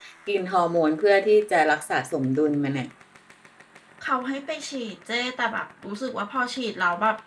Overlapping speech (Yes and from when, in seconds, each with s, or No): No